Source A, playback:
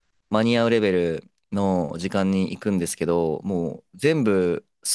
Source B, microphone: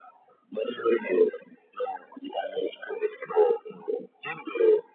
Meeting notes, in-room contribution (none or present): none